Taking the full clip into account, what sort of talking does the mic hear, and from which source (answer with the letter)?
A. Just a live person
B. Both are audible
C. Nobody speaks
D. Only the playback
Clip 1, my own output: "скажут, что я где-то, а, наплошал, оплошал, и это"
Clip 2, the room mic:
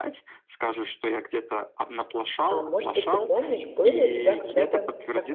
B